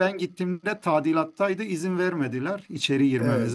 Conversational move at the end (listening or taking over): taking over